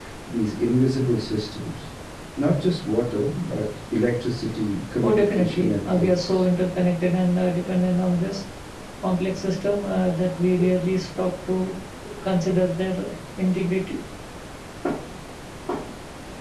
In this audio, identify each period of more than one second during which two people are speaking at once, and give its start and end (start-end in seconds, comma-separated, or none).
5.0-6.4